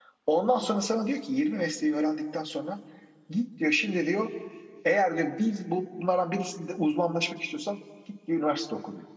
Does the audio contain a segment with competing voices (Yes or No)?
No